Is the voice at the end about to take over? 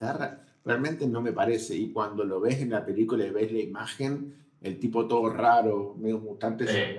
No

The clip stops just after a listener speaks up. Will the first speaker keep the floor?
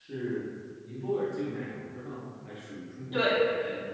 No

